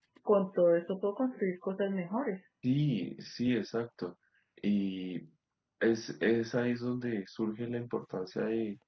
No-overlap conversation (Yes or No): Yes